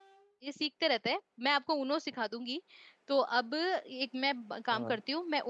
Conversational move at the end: listening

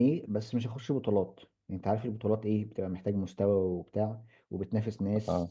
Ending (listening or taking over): listening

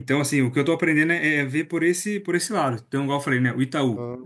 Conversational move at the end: listening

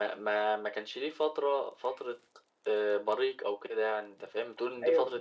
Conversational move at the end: taking over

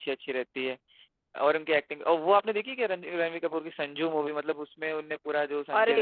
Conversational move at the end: taking over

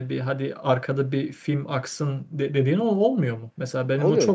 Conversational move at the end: taking over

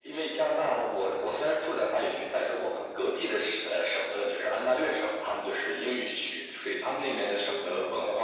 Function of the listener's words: listening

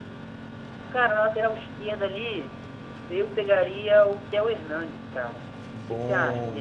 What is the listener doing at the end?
taking over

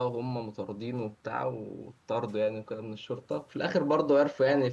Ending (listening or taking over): listening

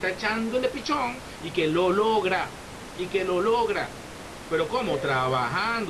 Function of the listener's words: listening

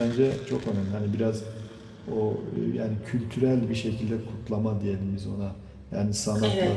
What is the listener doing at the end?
listening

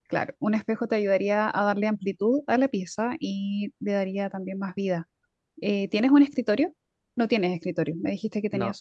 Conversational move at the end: listening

